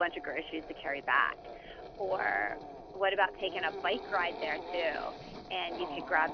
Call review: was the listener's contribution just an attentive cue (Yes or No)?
Yes